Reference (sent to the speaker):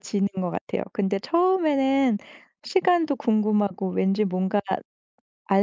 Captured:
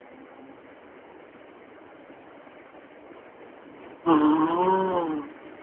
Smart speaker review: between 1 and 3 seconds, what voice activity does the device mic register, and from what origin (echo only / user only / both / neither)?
neither